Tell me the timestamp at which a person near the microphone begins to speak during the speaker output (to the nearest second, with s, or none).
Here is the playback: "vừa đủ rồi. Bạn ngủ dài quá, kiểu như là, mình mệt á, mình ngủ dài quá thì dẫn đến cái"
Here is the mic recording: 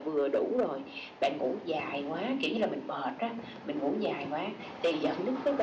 none